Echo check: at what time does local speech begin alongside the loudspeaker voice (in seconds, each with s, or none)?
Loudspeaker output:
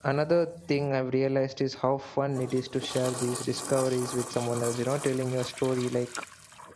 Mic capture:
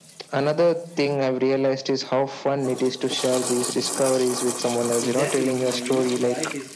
5.0 s